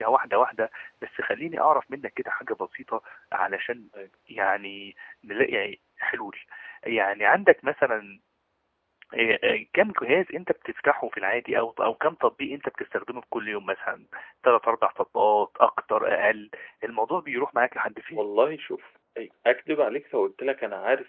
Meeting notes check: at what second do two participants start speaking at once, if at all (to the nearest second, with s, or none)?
none